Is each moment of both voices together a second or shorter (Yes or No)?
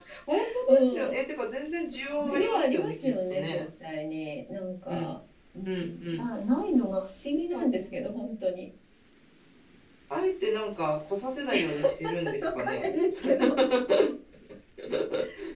No